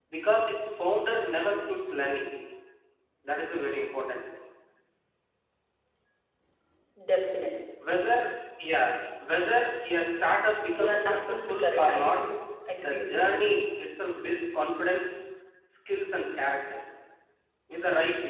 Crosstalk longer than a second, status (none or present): present